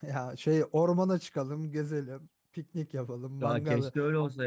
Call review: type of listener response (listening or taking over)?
taking over